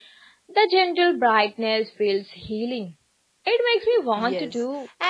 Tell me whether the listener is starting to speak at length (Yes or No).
Yes